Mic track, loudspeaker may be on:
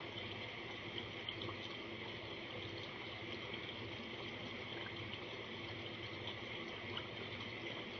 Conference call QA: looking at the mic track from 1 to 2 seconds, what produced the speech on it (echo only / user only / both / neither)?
neither